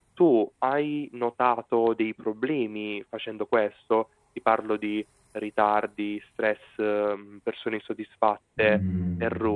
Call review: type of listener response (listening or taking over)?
listening